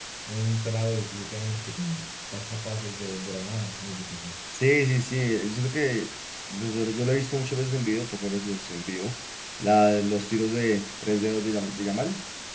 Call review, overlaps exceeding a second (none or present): none